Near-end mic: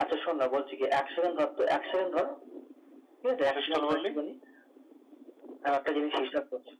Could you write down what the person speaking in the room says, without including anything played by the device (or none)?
কিসের স্টল বললি